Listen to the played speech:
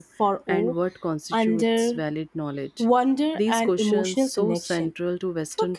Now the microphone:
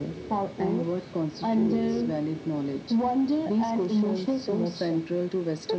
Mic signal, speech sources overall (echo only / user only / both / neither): echo only